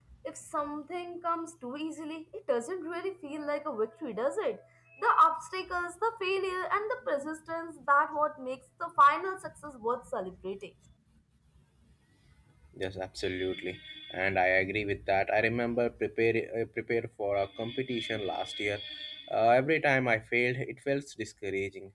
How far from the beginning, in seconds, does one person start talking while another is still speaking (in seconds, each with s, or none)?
none